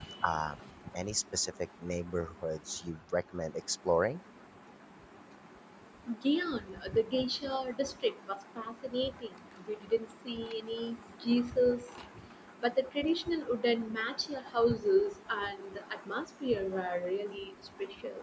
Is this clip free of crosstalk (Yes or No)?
Yes